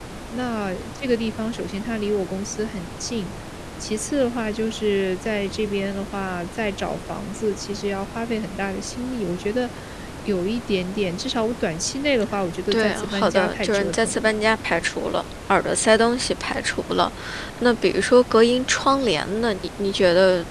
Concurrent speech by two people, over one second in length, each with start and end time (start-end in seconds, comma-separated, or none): 12.7-14.4